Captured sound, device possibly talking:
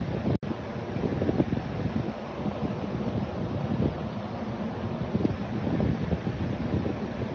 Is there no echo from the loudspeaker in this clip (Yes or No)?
Yes